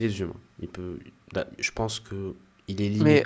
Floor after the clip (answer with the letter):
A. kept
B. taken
B